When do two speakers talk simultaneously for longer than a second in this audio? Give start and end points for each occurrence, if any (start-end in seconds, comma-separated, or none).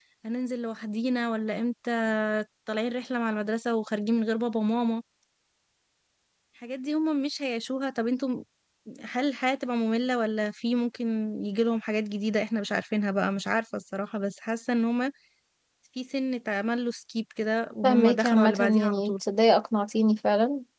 17.8-19.1